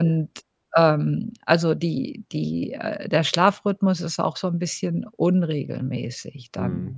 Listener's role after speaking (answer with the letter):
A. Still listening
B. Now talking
B